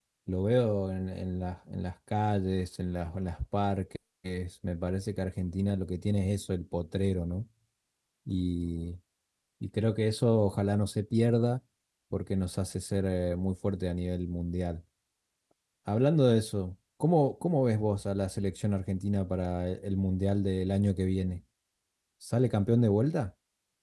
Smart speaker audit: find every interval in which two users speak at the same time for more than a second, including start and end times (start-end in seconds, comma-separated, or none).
none